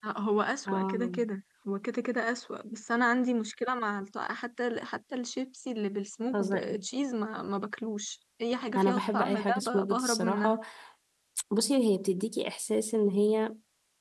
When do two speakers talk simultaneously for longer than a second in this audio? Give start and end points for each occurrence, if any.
8.8-10.6

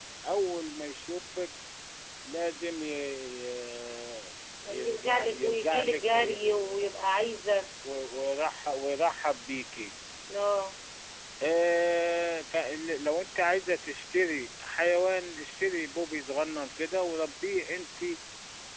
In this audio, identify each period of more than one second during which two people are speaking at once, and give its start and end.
4.7-7.1

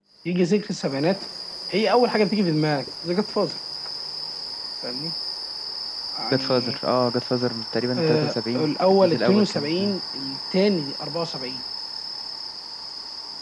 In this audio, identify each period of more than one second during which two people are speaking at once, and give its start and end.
8.0-9.9

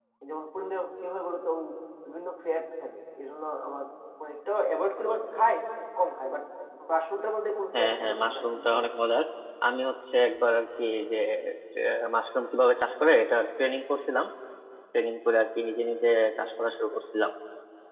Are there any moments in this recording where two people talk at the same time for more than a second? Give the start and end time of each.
7.8-9.0

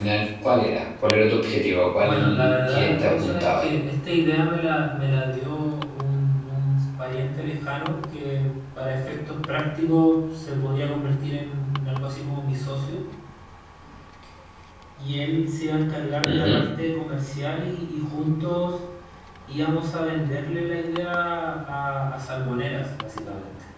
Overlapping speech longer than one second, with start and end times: 2.0-3.7

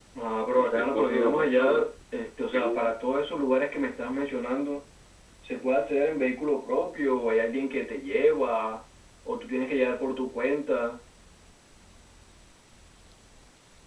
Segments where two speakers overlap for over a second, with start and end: 0.6-1.9

